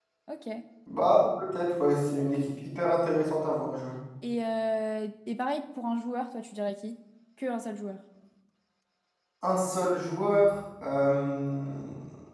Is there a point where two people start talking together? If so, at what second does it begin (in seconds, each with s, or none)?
none